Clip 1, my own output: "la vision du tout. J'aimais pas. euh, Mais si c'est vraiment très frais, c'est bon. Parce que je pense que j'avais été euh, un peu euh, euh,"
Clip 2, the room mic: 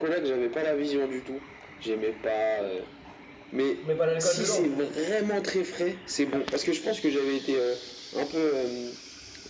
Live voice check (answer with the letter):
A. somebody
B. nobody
A